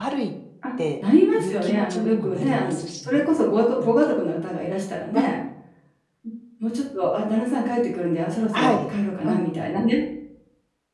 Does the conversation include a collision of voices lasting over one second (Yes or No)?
Yes